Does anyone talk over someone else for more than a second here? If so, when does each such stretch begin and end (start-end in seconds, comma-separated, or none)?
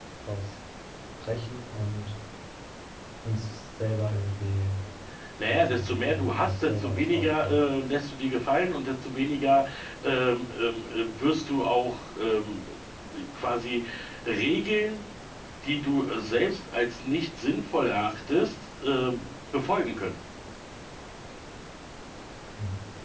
5.5-7.6